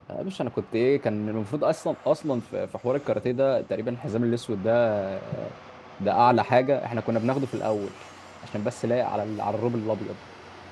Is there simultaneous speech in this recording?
No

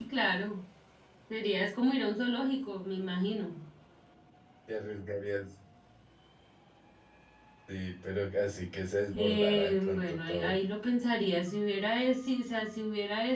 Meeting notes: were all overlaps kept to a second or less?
No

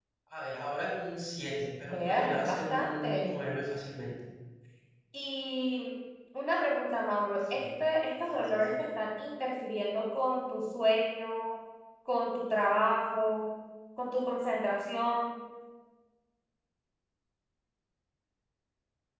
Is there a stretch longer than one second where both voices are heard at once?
Yes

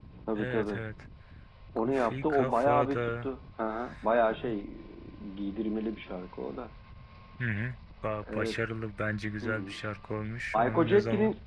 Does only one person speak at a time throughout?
No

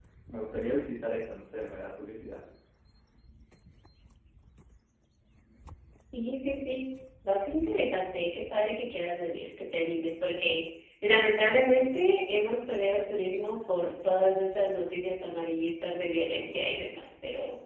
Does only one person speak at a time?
Yes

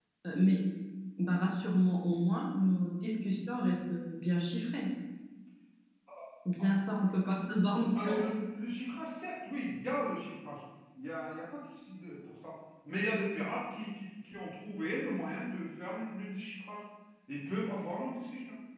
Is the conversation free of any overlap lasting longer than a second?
Yes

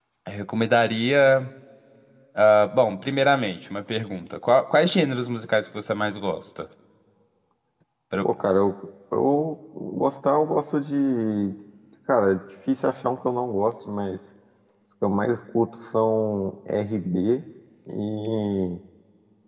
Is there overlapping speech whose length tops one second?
No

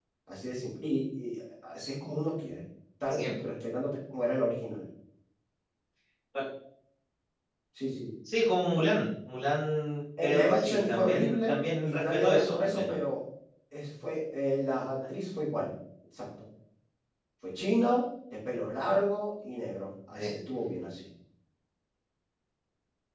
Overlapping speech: Yes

